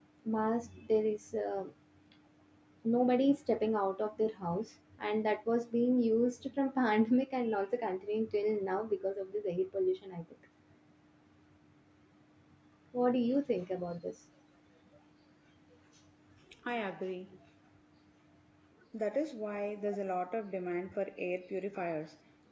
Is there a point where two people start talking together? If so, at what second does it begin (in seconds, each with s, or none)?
none